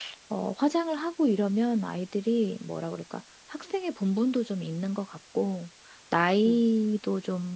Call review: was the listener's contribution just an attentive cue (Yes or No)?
Yes